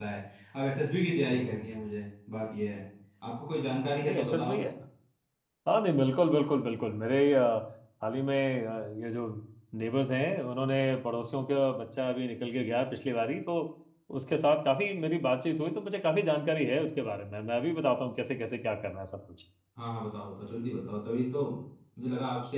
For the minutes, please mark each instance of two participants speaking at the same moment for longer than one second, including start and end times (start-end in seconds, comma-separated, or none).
none